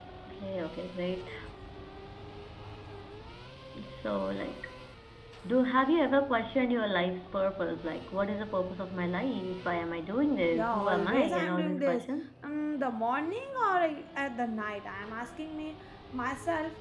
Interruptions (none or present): present